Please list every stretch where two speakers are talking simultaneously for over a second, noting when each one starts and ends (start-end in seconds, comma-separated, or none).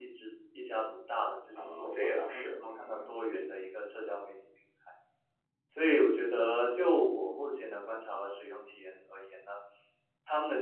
1.6-3.4